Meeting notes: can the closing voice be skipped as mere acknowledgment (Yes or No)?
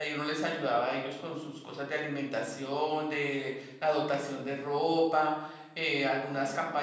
Yes